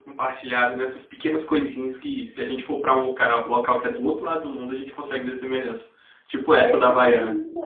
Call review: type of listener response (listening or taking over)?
taking over